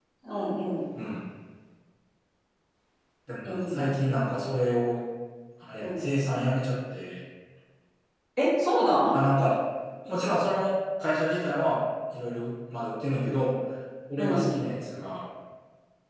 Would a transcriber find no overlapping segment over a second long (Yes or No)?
Yes